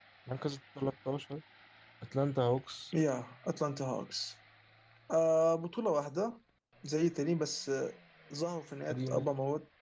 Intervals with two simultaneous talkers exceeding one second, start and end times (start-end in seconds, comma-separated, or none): none